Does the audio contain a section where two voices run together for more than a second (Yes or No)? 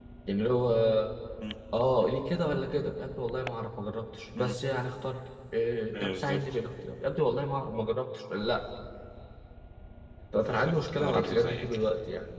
Yes